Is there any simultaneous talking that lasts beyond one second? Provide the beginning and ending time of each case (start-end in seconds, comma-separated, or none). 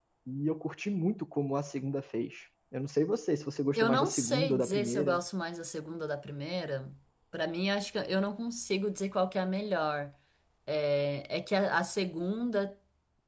3.8-5.2